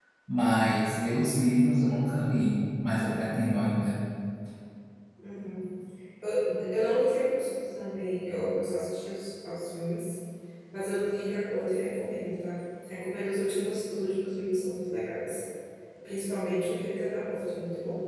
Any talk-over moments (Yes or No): No